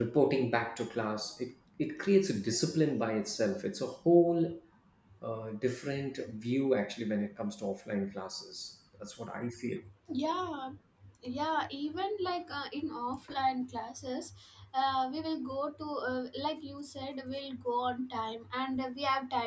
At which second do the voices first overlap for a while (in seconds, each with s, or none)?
none